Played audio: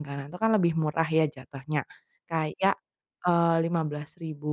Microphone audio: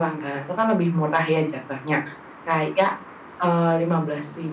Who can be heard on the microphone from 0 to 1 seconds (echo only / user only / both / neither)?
echo only